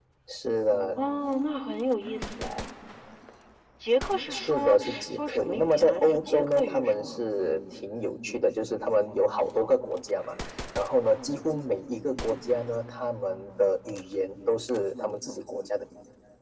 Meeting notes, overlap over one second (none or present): present